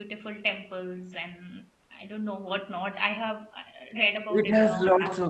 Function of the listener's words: taking over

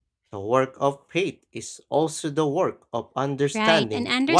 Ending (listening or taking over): taking over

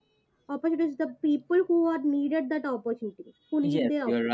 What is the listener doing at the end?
taking over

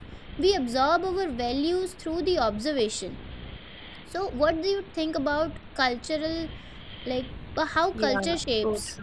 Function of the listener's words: taking over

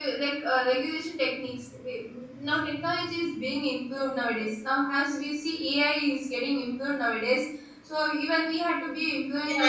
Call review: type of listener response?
taking over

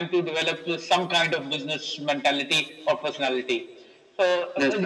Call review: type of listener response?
listening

